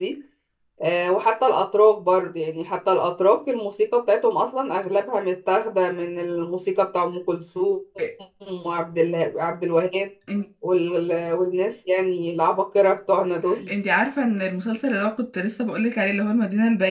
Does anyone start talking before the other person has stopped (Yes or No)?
No